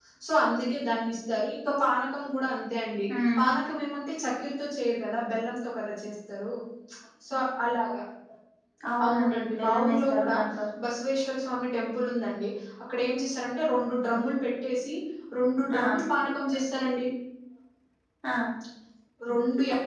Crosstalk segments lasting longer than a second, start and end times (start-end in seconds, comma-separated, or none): 9.0-10.3